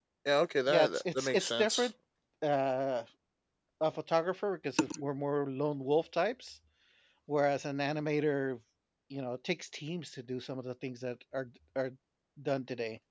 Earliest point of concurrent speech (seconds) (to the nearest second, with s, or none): 1 s